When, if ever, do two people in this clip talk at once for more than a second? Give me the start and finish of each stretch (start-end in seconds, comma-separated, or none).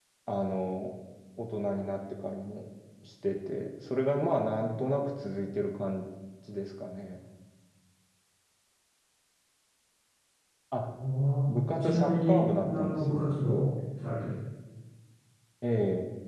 11.5-13.7